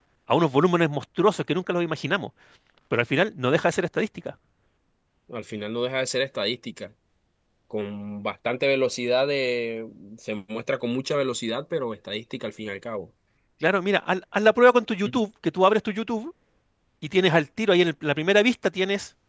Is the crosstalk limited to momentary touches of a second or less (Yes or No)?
Yes